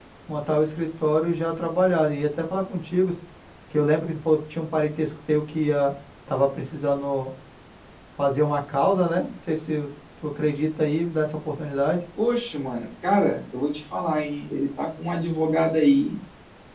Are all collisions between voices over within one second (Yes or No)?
Yes